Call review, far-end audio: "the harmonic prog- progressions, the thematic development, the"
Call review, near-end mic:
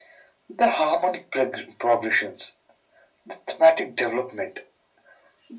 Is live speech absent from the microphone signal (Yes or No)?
Yes